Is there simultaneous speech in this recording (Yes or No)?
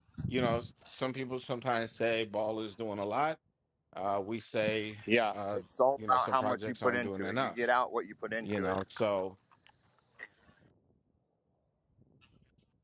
Yes